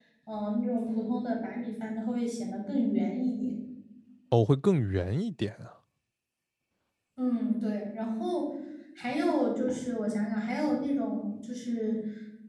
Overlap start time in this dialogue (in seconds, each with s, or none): none